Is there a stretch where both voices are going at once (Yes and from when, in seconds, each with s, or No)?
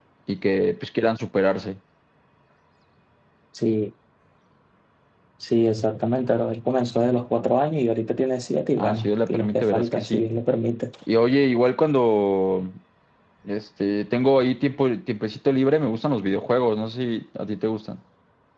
Yes, from 8.8 s